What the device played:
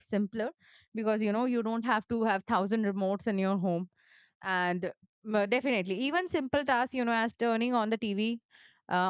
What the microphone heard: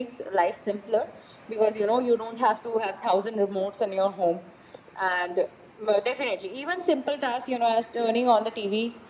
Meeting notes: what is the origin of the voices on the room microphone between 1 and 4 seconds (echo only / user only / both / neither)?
echo only